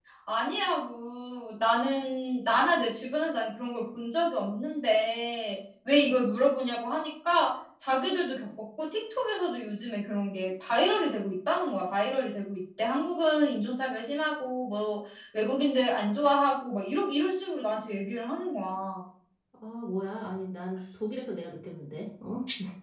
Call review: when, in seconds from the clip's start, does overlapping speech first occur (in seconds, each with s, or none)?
none